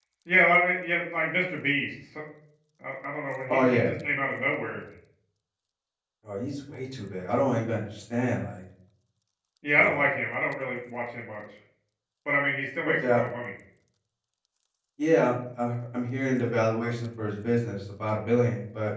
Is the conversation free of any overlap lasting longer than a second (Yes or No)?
Yes